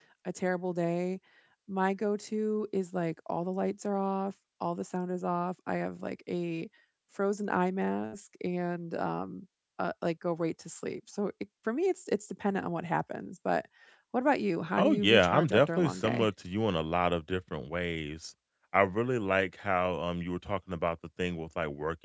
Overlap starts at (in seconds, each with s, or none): 14.8 s